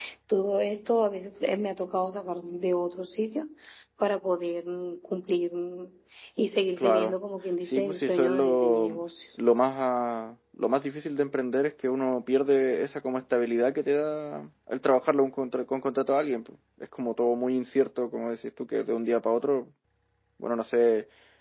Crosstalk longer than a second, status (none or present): present